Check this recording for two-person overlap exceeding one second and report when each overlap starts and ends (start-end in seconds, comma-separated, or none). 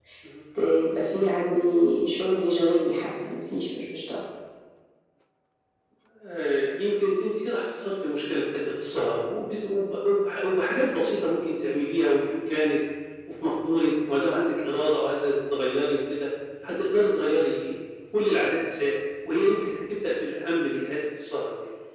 none